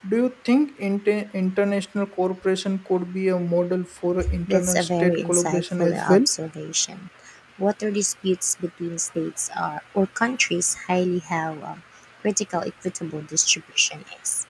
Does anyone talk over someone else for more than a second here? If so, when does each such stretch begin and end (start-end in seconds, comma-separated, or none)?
4.5-6.2